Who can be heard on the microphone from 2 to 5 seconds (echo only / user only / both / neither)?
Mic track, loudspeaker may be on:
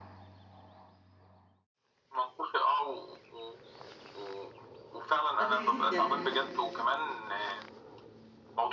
echo only